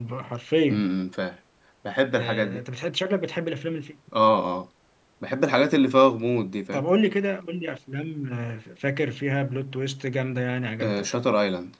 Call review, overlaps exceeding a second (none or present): none